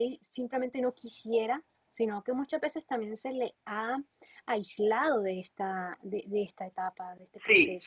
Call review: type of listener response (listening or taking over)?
taking over